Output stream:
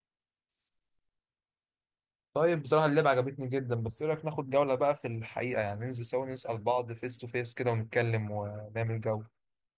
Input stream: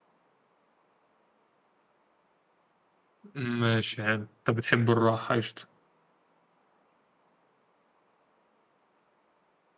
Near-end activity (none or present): present